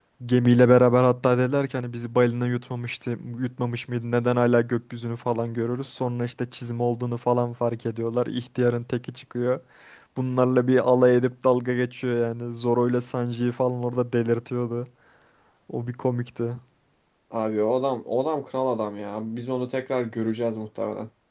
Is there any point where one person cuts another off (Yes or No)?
No